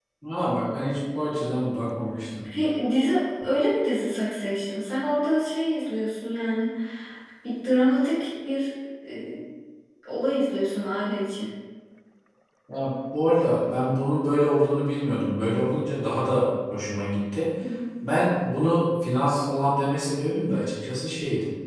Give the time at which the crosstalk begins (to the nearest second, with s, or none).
none